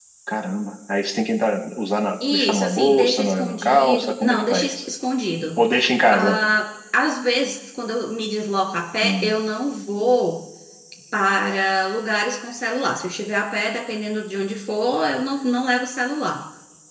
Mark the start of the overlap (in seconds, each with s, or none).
2.3 s